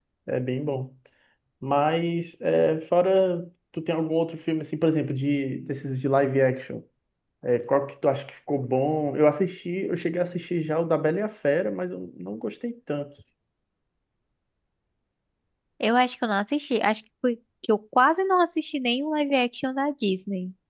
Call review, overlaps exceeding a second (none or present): none